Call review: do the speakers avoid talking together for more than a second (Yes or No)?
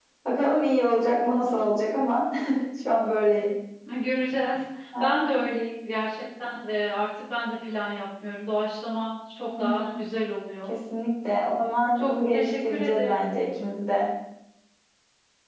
No